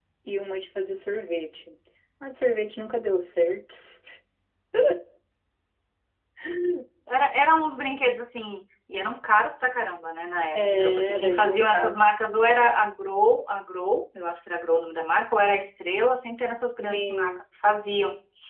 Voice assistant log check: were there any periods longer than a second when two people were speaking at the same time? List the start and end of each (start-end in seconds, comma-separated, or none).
10.6-11.9